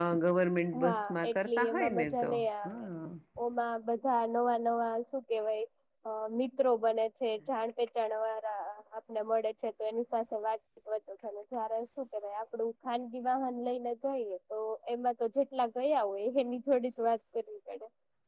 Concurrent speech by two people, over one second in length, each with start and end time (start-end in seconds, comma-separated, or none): 0.8-2.9